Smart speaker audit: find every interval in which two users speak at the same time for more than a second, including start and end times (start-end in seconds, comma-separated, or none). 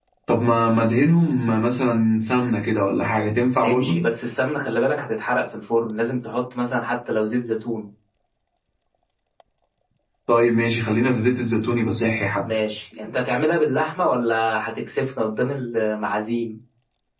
none